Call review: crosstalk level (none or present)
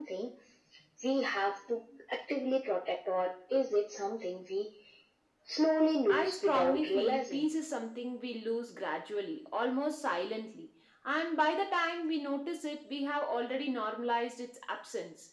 present